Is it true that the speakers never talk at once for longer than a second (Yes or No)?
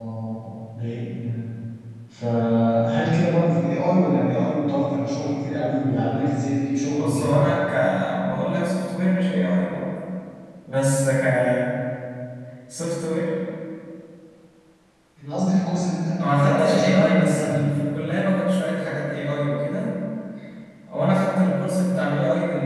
No